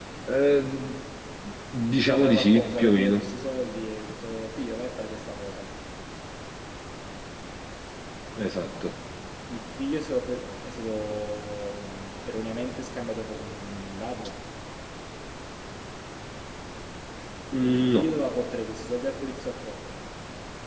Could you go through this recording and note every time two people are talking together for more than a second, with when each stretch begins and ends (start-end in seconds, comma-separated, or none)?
2.0-3.2